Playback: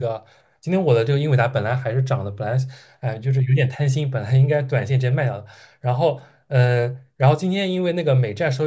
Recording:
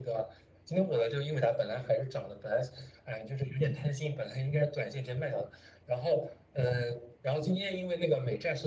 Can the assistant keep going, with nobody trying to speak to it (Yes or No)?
Yes